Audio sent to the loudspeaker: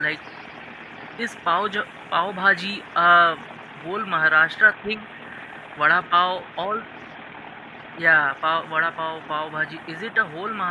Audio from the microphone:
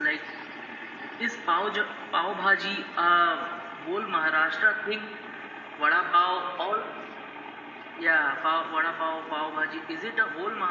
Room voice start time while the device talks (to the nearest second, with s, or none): none